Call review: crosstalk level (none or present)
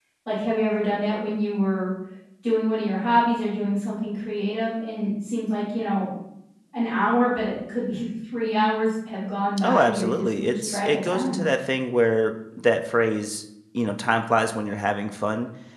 present